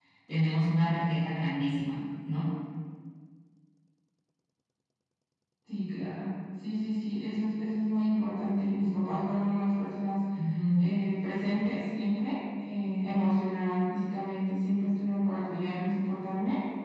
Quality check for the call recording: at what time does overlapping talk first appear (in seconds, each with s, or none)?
none